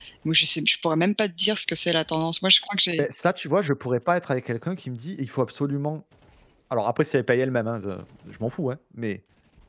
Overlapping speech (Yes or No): No